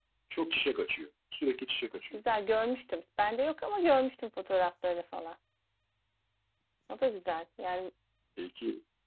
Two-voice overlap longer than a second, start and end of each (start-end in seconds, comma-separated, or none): none